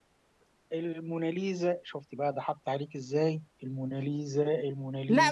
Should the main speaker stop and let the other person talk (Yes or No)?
Yes